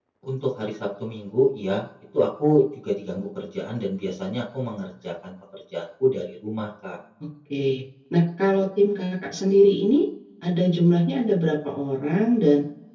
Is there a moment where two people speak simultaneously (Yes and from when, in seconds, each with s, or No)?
No